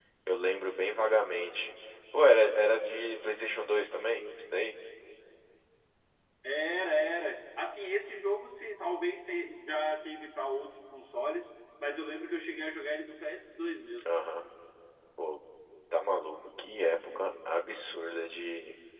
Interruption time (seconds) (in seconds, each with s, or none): none